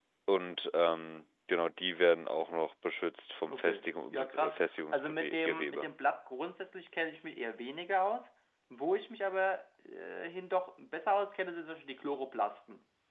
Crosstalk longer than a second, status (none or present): present